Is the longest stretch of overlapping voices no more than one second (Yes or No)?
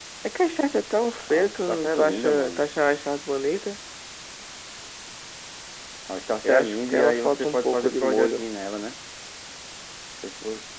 No